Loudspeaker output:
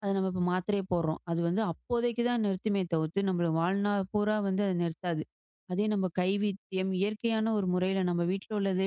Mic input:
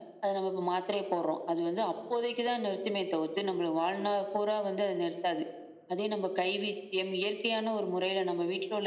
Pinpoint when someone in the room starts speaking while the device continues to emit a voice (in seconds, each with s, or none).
none